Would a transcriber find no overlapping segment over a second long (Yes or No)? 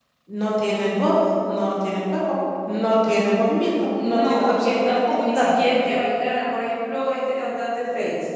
No